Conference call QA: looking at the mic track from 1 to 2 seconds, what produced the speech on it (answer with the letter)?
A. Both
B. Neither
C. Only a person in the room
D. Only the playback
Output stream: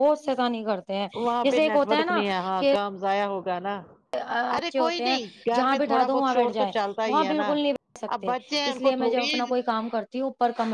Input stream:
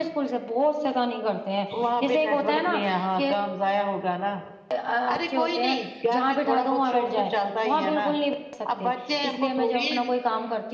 D